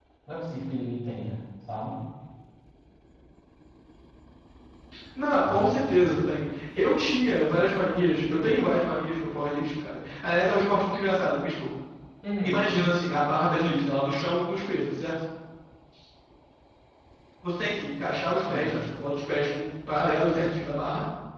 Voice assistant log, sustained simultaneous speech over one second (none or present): none